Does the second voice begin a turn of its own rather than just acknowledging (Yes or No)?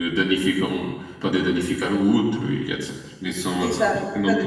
Yes